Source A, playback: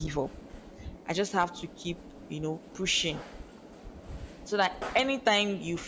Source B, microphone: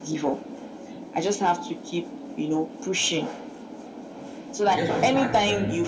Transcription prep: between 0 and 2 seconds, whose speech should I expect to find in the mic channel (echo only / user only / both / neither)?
echo only